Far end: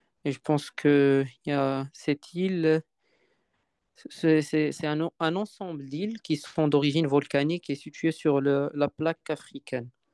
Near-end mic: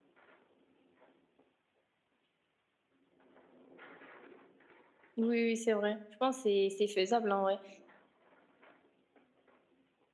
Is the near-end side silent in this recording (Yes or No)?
No